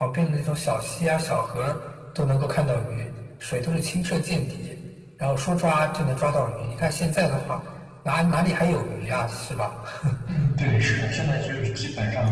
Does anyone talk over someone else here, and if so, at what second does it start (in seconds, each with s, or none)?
none